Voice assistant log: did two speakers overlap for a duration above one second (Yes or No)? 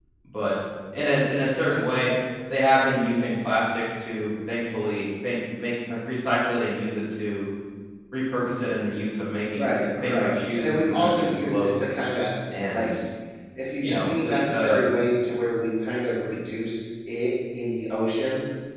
Yes